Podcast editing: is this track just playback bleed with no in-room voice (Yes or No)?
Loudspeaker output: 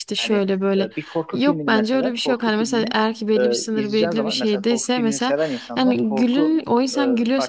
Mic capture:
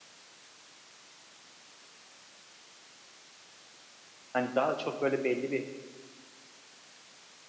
No